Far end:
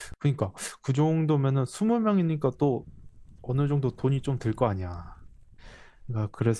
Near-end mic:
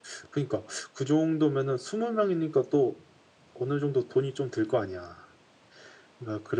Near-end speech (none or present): none